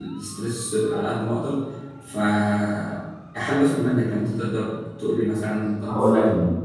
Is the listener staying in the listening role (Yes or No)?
No